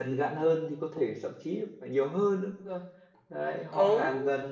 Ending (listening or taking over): listening